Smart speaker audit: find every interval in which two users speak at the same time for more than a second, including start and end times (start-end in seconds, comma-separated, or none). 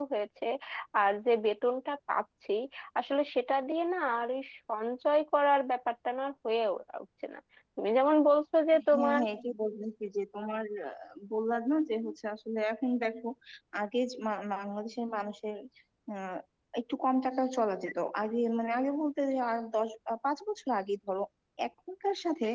none